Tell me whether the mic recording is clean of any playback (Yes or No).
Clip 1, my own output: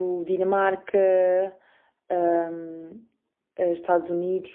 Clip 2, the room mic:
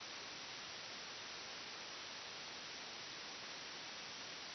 Yes